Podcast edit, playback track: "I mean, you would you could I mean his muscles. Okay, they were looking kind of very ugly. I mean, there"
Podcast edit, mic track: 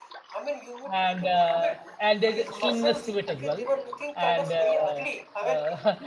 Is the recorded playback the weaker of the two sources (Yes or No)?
Yes